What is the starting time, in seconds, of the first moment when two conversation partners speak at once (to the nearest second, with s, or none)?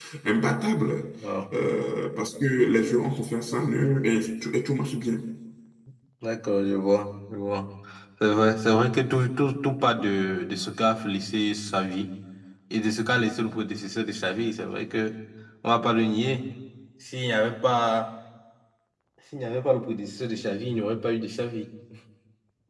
none